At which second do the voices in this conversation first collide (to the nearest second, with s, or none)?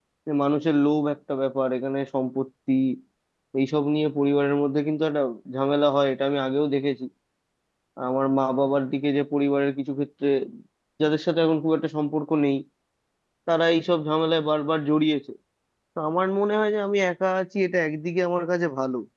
none